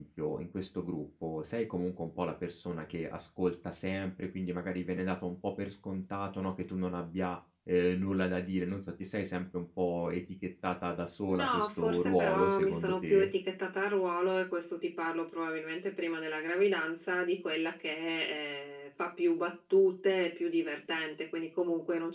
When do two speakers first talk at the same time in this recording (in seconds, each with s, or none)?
11.3 s